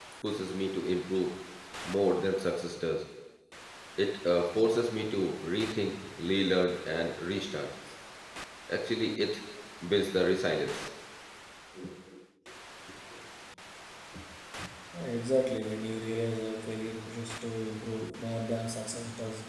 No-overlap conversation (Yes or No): Yes